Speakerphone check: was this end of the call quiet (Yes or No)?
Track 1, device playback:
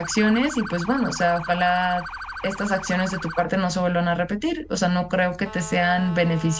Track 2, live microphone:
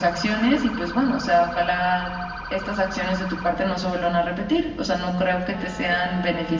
Yes